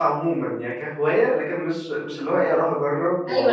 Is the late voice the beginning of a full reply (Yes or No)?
Yes